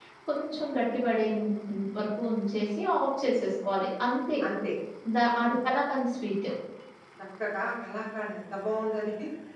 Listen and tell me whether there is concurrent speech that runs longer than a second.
No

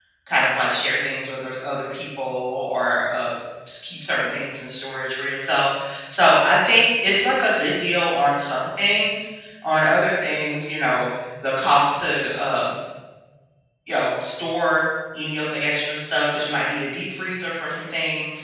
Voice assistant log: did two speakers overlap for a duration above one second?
No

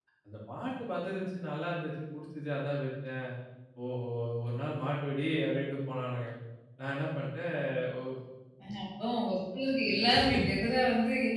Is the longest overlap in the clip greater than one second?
No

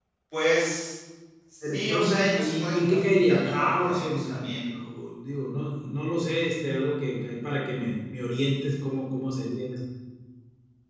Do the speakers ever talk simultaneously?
Yes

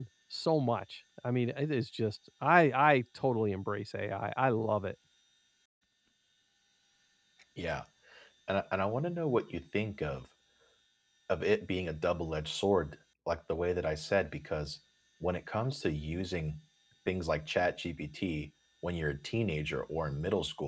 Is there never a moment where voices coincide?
Yes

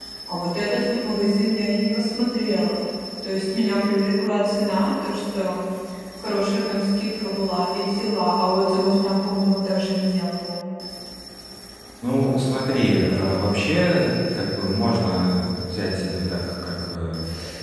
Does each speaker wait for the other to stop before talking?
Yes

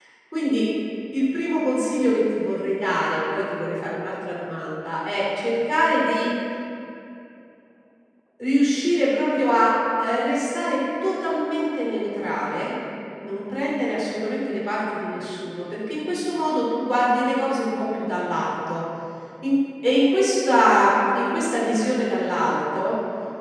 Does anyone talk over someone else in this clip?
No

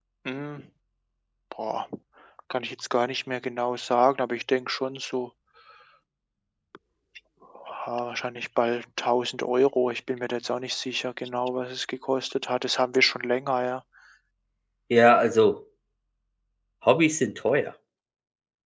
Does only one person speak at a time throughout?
Yes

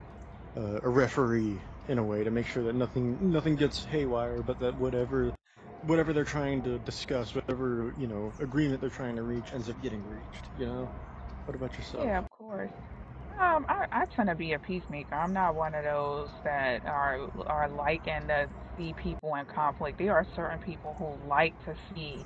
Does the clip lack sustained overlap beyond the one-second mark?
Yes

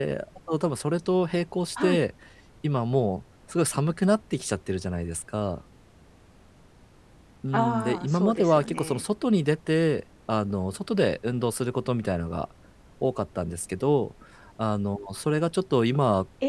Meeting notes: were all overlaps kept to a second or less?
No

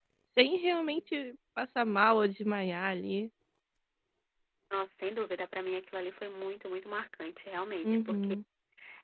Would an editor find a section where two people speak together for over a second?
No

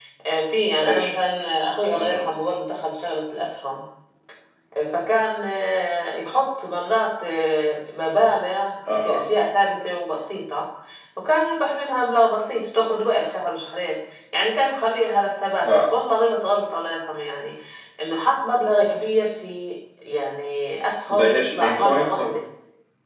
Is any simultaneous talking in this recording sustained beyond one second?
Yes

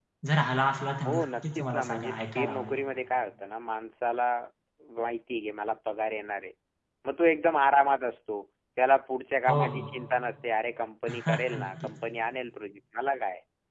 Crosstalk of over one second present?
Yes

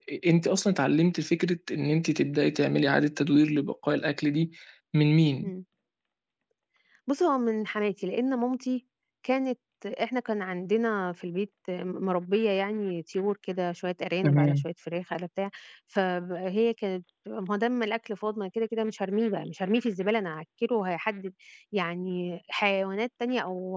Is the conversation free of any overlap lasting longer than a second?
Yes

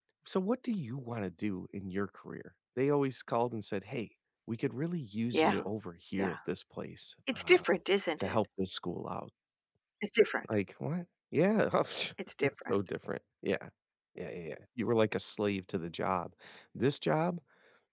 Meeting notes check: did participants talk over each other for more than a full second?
No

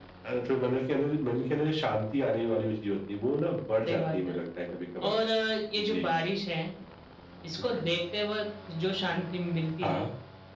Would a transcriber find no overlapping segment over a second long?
Yes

